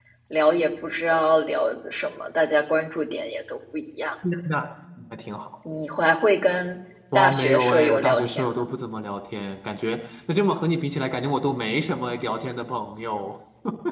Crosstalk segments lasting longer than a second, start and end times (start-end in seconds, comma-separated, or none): 7.2-8.8